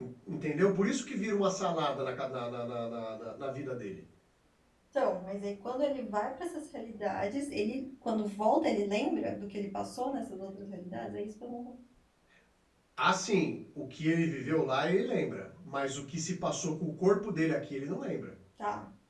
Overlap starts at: none

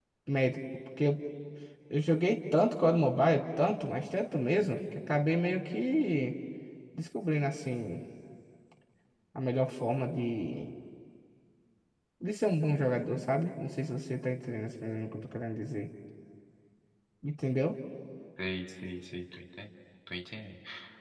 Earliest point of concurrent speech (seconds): none

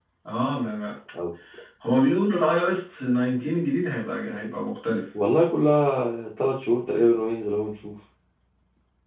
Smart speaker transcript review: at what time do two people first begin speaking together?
none

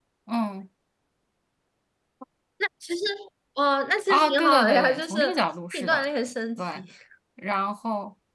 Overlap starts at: 4.1 s

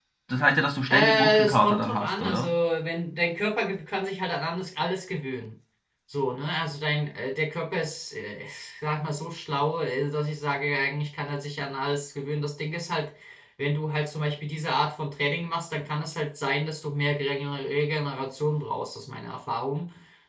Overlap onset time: 0.9 s

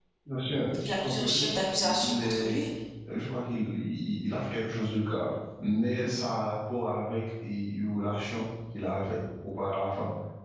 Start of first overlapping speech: 1.0 s

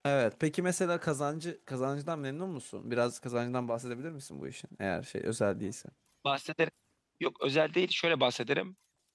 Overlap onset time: none

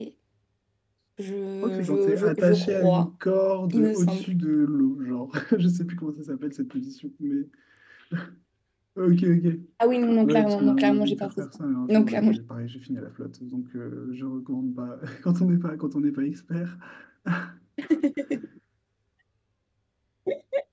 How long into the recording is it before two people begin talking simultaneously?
1.6 s

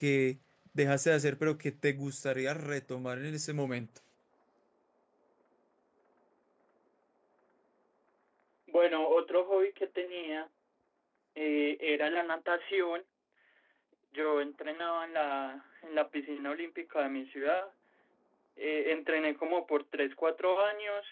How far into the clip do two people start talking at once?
none

